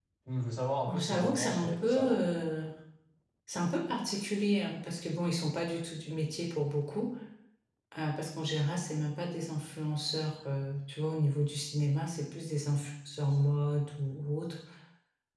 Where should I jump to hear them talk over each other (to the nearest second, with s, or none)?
1 s